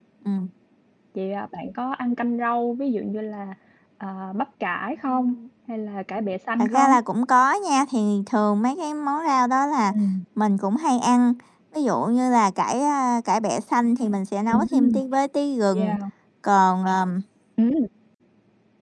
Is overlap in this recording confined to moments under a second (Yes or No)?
Yes